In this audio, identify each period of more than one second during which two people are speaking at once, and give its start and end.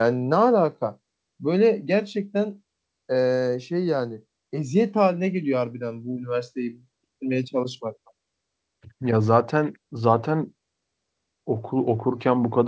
none

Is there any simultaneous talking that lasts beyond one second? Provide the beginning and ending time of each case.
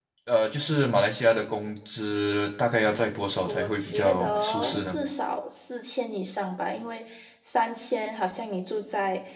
3.4-5.0

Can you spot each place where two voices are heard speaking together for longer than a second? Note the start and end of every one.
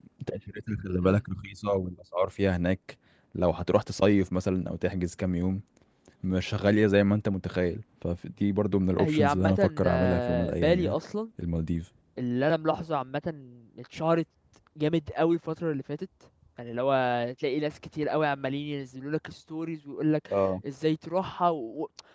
9.0-10.9

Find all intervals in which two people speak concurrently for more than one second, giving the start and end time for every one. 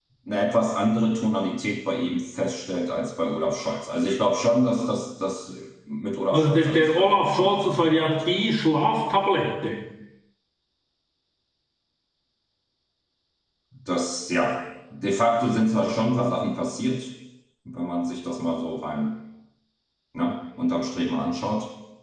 6.3-8.1

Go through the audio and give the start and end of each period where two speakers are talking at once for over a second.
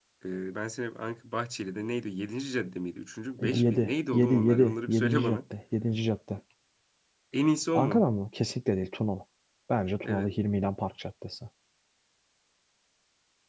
3.5-5.4

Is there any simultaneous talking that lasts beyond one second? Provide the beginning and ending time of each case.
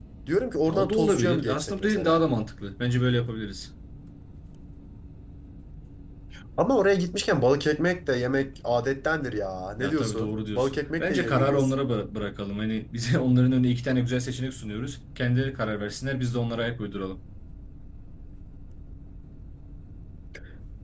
0.7-2.2, 9.8-11.7

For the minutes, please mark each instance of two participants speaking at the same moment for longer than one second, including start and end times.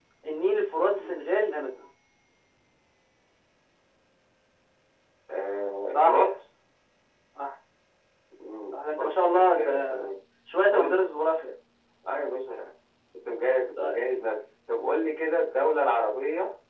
8.7-10.0

